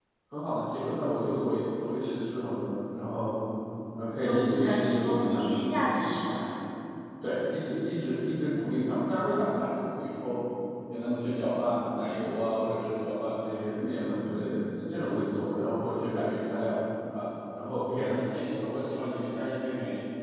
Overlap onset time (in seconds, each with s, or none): 4.2 s